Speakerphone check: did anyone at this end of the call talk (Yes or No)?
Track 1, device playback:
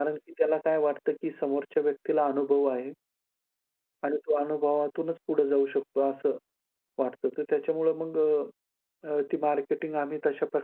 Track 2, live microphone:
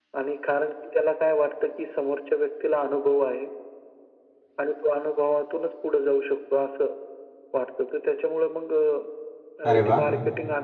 Yes